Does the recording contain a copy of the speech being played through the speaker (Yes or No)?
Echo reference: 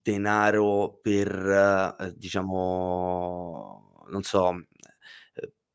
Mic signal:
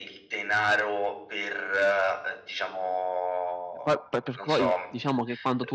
Yes